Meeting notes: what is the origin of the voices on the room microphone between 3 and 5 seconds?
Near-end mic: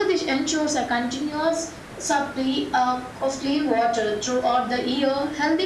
echo only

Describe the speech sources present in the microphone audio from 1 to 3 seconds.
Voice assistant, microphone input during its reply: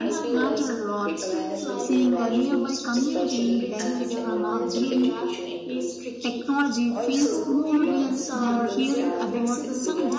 both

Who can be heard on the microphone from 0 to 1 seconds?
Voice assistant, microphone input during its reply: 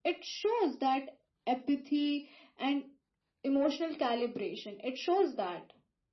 echo only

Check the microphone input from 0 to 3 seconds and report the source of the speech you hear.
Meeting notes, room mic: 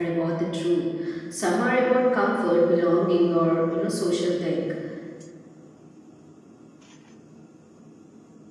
user only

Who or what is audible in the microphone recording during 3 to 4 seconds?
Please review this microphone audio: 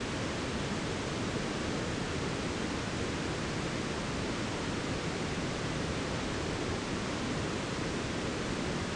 neither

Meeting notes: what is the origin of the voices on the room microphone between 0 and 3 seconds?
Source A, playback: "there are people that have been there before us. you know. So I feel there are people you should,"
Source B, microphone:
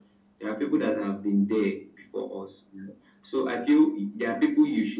echo only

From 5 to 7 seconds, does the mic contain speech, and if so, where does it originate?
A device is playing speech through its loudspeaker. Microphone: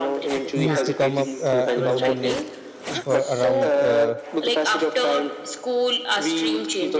echo only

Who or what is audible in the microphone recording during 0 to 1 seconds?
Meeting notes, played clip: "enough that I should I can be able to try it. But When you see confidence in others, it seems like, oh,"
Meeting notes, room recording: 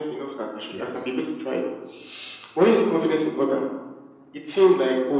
both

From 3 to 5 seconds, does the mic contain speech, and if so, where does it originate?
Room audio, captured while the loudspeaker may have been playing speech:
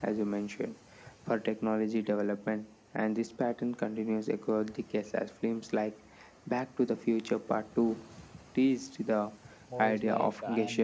echo only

